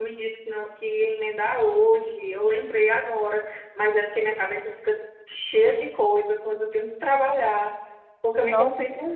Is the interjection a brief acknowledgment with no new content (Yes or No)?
Yes